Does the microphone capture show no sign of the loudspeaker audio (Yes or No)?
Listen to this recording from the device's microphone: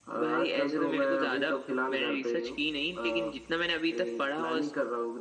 No